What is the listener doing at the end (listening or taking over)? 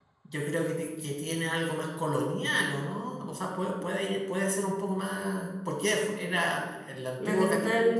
taking over